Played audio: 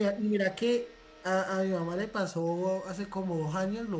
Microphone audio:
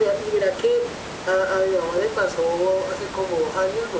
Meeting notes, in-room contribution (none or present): none